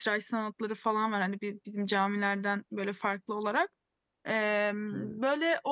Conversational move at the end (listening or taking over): listening